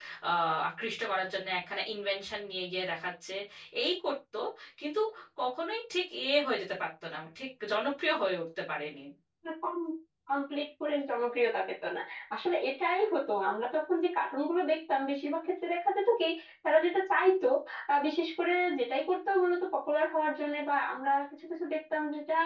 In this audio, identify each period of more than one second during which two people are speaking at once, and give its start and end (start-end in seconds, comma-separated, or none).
none